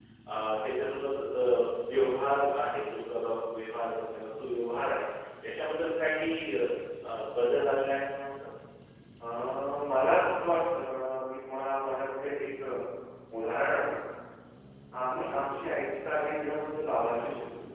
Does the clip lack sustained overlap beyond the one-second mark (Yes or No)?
Yes